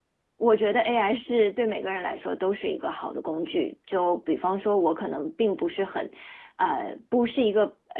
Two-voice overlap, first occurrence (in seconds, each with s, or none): none